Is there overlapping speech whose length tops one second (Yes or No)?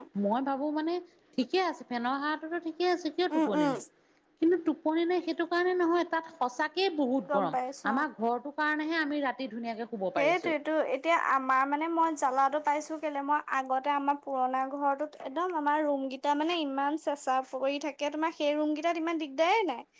No